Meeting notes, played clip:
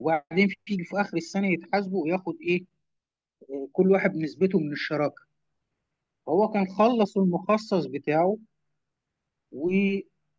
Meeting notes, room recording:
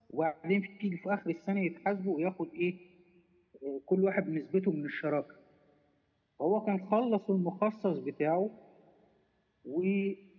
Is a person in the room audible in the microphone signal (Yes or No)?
No